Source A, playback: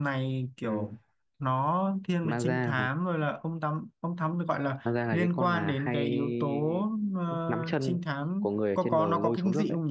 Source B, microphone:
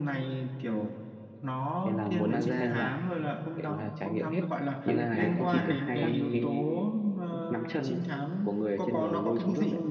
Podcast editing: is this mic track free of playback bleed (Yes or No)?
No